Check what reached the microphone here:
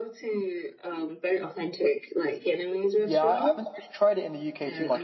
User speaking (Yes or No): Yes